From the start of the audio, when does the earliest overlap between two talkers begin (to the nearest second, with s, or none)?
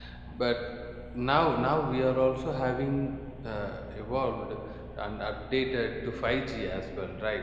none